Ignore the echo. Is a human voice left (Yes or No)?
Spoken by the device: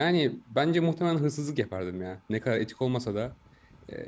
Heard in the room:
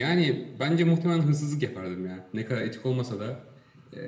No